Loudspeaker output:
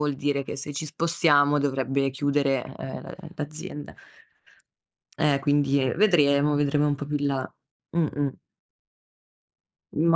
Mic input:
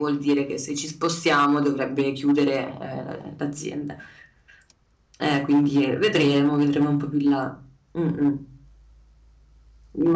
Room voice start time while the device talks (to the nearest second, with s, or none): 6 s